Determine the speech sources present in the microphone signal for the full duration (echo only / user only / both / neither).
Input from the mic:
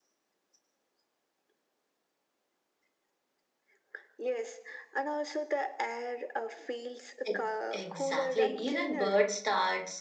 both